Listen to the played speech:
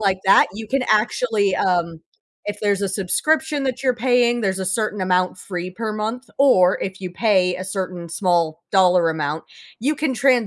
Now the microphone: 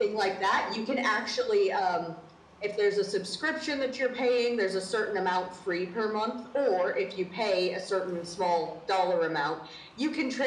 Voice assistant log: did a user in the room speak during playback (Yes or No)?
No